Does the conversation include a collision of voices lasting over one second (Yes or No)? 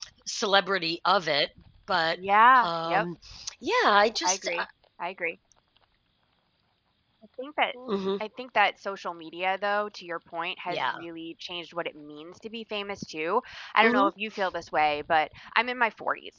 No